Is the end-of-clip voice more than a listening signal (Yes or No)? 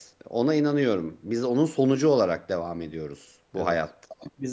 No